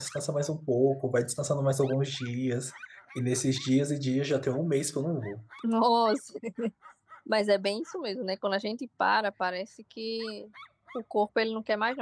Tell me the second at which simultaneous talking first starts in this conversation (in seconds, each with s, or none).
none